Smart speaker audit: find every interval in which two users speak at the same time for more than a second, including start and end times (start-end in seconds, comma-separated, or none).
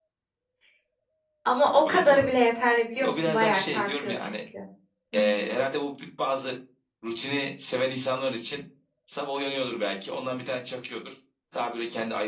3.0-4.3